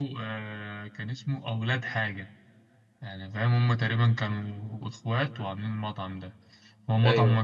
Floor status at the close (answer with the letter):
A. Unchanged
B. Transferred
A